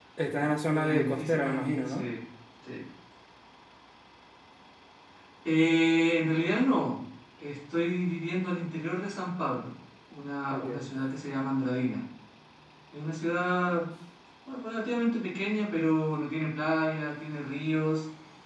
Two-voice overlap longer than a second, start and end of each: 0.7-2.1

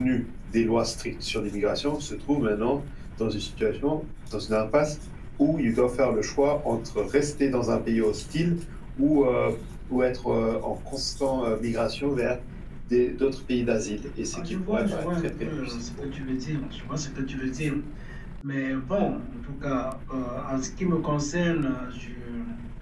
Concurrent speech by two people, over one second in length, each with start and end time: 14.3-16.1

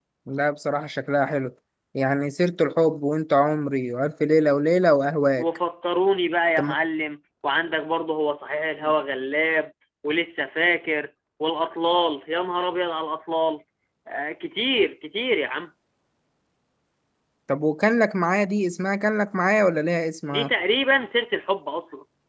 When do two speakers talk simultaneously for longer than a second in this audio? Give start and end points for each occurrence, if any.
none

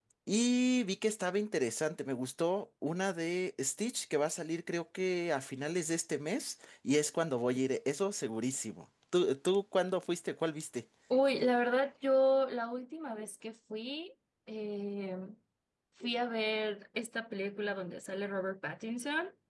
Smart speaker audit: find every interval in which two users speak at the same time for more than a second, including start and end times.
none

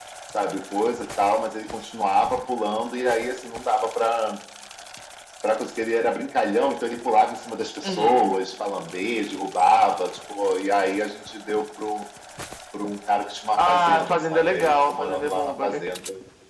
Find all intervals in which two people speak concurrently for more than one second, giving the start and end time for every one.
13.6-15.8

